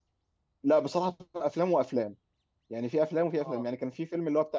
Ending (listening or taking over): listening